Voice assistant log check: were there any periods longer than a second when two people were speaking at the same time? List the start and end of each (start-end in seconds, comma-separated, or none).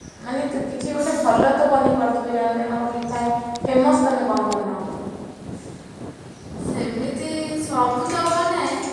none